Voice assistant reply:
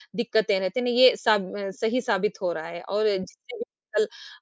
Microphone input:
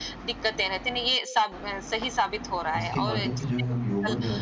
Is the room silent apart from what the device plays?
No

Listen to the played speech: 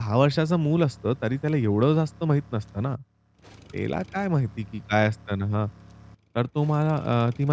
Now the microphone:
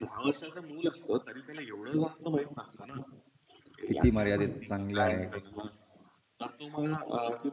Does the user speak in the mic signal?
Yes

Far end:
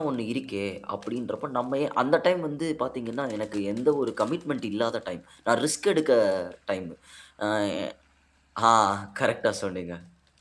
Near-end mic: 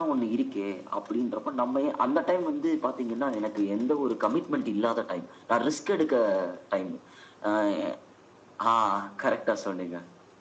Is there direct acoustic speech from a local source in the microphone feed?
No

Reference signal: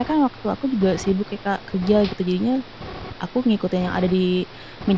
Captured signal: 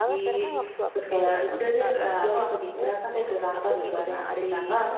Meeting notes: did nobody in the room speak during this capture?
No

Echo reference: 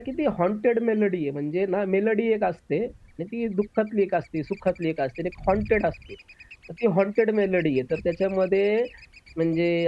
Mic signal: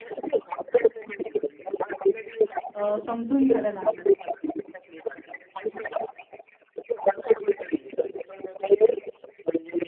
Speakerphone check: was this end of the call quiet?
No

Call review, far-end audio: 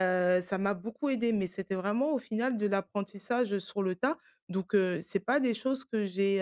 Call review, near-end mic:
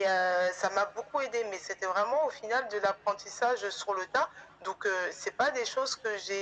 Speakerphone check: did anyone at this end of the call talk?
No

